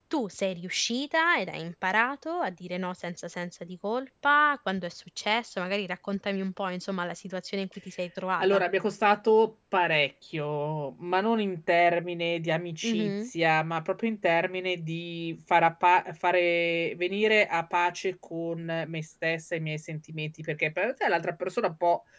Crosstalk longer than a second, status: none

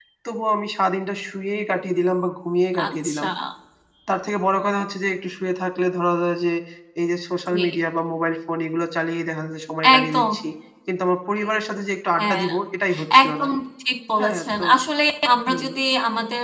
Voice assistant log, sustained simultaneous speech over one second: none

